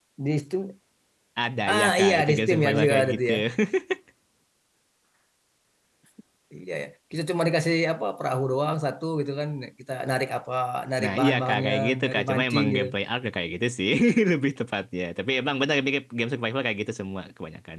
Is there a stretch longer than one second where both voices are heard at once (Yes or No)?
Yes